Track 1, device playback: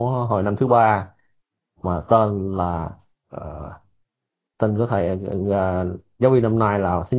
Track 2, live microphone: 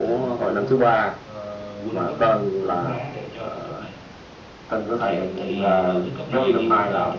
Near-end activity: present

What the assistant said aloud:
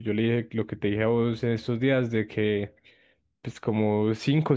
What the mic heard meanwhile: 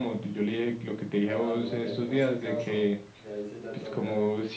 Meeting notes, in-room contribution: present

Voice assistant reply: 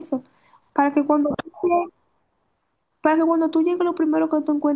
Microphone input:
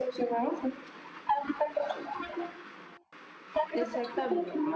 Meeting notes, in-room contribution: present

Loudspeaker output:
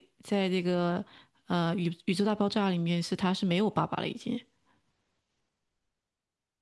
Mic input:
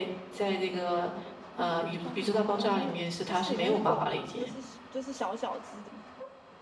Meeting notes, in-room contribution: present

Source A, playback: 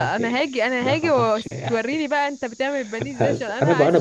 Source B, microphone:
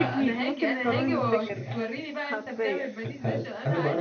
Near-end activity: present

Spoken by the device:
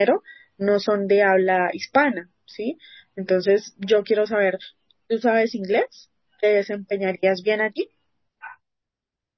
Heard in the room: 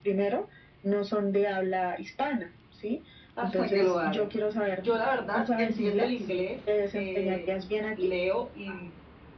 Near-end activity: present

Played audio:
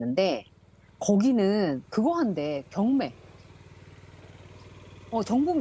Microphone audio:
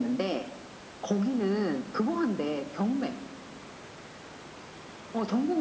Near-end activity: none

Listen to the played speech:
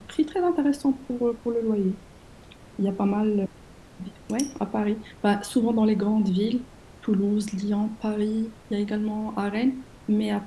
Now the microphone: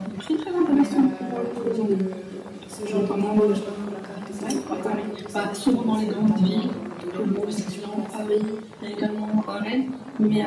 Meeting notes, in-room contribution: present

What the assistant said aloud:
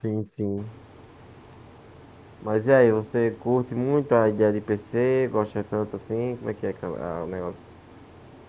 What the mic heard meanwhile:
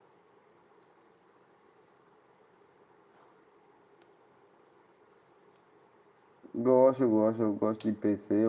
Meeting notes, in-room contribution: present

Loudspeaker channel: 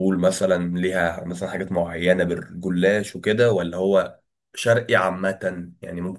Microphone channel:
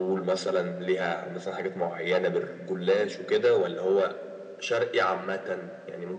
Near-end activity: none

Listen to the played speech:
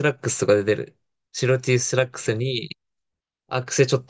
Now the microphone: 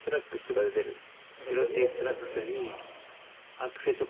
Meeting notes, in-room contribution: present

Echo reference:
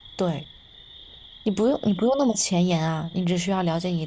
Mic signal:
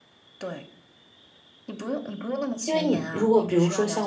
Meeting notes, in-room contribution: present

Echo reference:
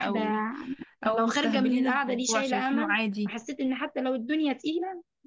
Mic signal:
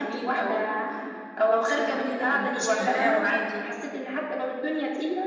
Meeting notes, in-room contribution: present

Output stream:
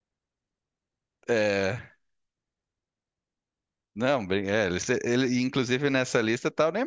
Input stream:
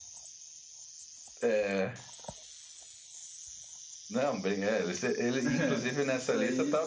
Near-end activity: present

